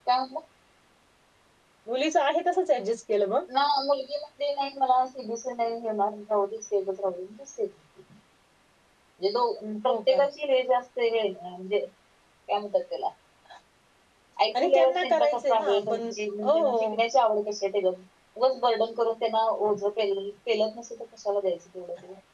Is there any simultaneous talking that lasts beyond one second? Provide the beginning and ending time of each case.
14.6-16.1

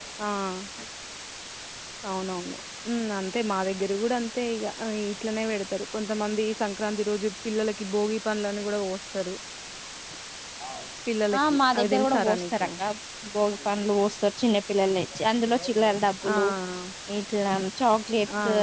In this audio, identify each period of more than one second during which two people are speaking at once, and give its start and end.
11.4-12.7

